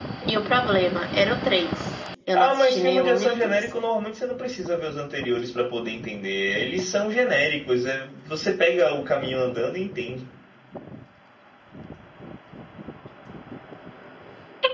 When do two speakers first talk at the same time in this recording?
2 s

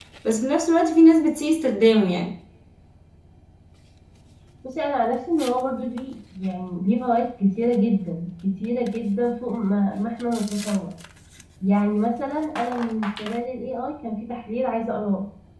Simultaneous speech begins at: none

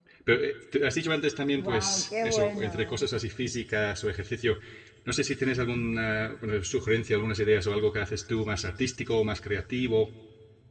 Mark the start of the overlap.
2 s

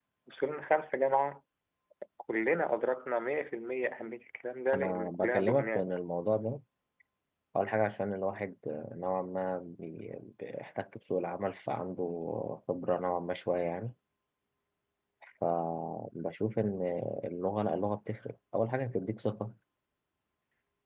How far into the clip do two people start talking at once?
5 s

